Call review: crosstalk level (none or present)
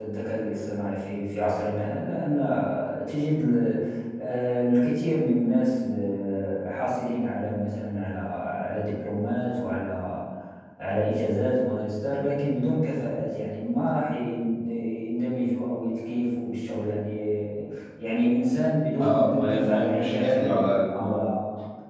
present